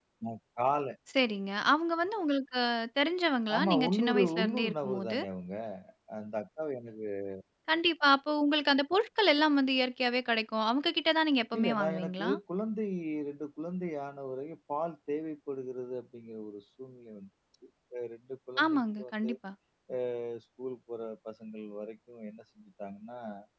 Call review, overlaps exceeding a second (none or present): present